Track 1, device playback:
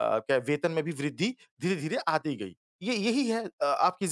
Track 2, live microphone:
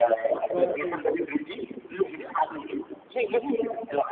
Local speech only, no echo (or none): वाक़ई,